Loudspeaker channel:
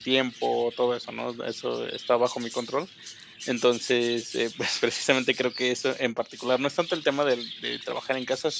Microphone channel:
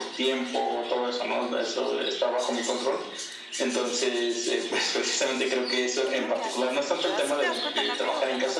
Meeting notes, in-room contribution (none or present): present